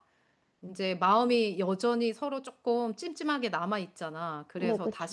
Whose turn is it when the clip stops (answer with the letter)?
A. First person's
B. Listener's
A